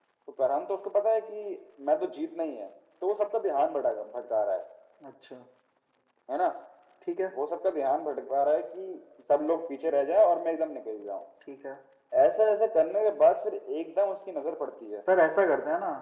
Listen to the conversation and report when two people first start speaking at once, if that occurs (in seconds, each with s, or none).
none